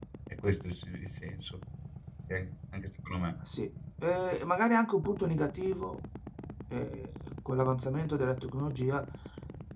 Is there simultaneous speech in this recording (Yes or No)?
No